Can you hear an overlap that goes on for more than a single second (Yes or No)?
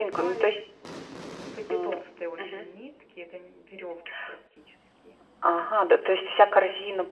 No